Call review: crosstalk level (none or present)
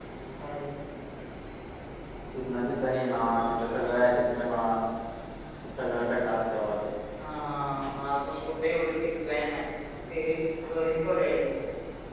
none